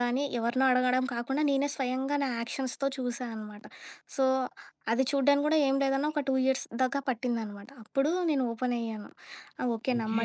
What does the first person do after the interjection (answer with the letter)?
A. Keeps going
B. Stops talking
B